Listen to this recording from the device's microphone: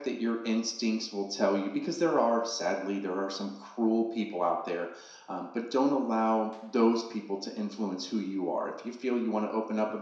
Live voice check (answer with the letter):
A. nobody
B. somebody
A